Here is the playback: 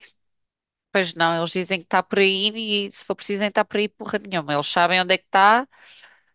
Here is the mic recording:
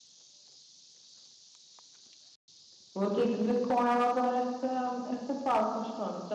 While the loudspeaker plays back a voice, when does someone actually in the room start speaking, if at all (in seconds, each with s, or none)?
2.9 s